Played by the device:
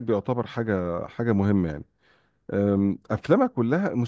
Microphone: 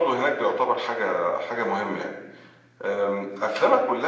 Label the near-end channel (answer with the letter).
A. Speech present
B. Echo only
B